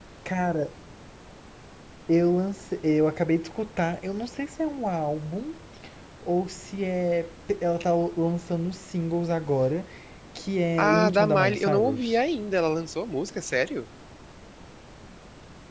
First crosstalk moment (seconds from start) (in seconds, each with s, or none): 10.8 s